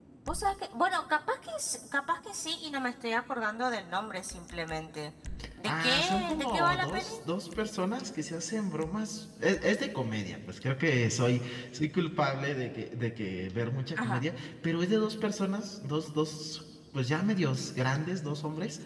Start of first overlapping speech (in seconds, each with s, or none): 5.7 s